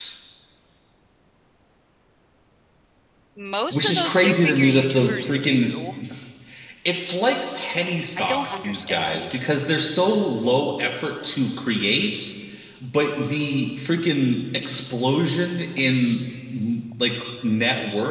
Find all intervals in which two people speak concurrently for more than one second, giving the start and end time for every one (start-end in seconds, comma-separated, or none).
3.7-5.8, 8.2-9.4